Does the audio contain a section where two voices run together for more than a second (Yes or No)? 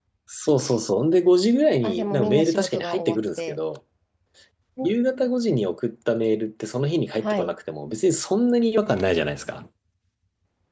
Yes